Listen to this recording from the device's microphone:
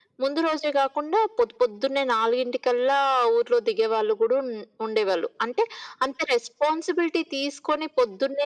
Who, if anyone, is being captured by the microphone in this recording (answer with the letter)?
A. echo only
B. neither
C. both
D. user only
A